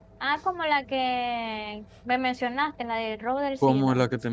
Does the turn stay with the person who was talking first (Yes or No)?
No